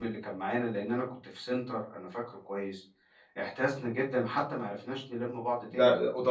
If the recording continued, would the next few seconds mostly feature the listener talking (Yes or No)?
Yes